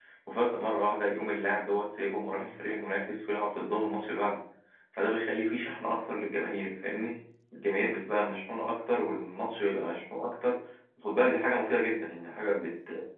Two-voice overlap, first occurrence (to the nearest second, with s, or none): none